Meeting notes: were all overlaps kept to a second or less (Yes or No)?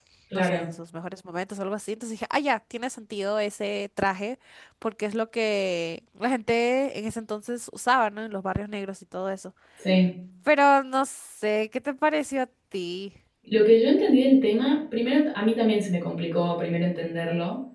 Yes